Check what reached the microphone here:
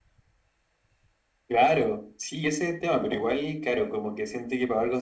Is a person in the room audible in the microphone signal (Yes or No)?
No